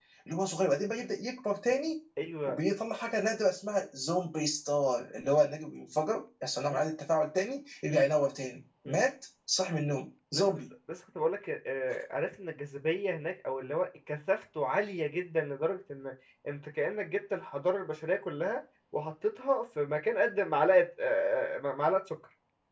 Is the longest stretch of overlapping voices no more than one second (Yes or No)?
Yes